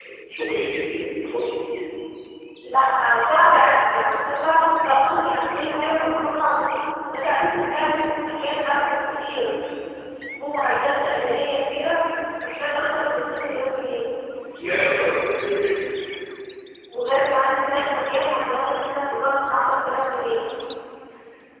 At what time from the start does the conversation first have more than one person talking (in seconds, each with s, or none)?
none